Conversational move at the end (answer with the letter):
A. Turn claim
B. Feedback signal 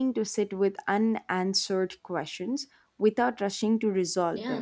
A